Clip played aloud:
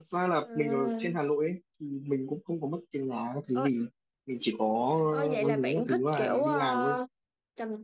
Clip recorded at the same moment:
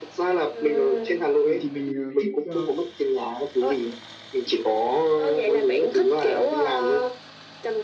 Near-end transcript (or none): mình thì mình ờ, thích ờ,